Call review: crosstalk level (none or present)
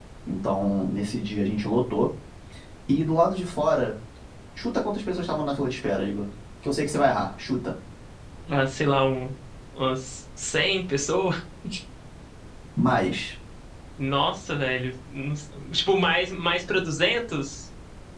none